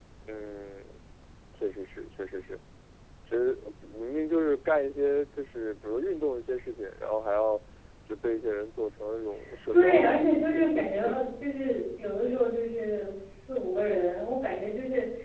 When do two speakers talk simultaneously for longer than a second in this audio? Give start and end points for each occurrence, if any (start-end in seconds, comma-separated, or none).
9.7-11.2